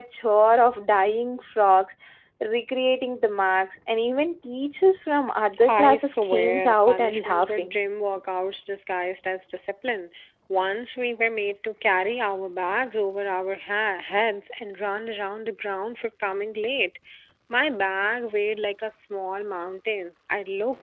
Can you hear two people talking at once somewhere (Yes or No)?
Yes